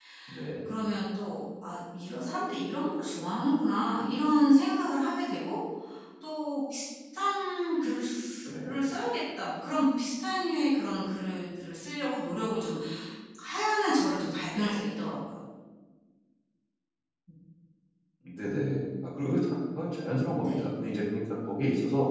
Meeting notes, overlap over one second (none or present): none